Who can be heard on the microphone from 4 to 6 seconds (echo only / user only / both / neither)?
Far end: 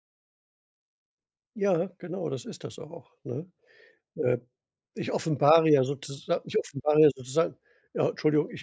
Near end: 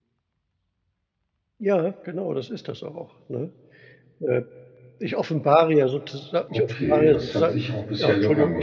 echo only